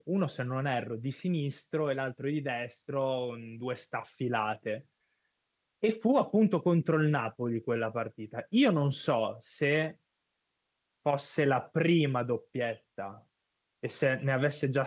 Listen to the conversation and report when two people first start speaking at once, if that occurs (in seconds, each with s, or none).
none